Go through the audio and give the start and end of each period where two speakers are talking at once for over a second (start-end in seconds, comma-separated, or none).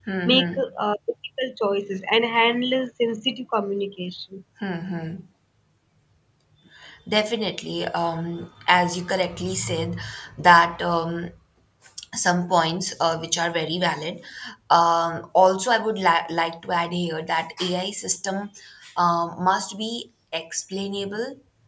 none